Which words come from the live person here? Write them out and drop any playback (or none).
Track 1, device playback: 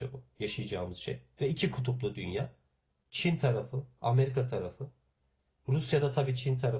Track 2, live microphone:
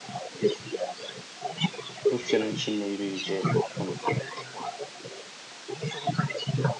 Rusya'nın Çin'le yürüyeceği konusu.